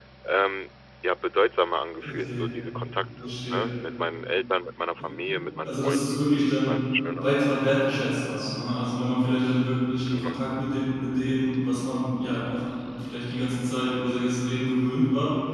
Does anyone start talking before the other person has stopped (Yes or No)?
Yes